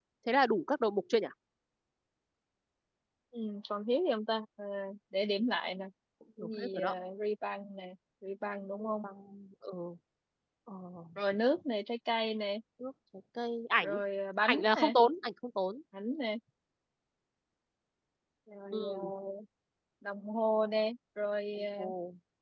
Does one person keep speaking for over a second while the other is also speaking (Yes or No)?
No